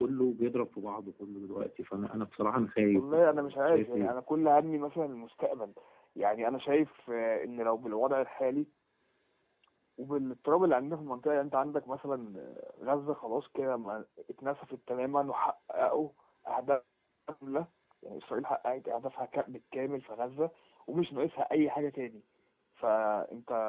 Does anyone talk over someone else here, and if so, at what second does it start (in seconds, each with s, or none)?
2.9 s